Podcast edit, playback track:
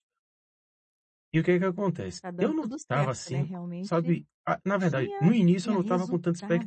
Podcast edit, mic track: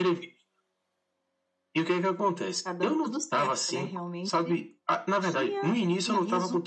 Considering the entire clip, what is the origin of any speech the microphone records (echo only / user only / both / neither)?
echo only